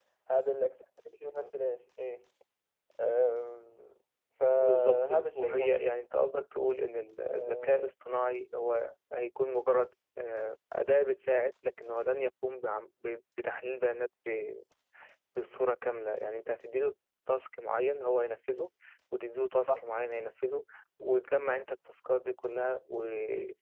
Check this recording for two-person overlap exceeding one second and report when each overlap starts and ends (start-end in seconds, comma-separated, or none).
4.5-5.9